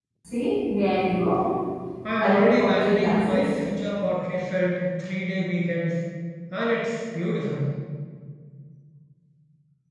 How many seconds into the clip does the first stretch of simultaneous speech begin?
2.2 s

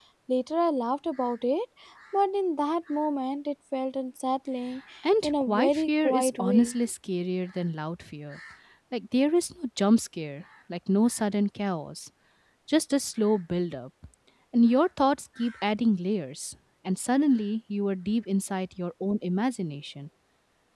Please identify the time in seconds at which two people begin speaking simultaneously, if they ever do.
5.2 s

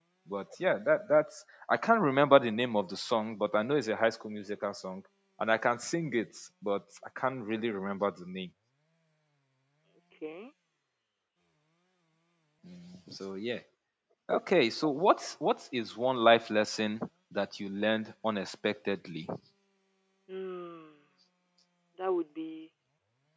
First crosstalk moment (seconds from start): none

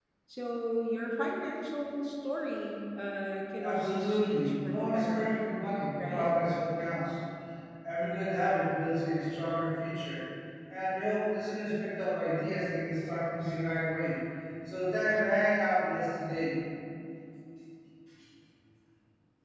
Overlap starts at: 3.6 s

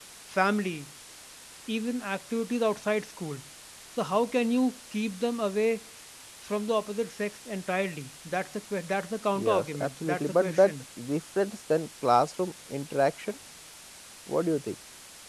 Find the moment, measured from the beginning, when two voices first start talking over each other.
9.4 s

